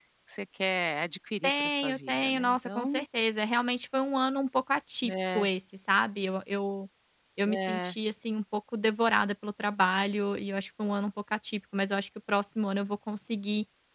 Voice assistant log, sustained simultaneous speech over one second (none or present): present